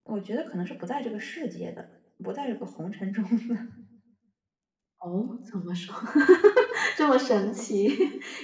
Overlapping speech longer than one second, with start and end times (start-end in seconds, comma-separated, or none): none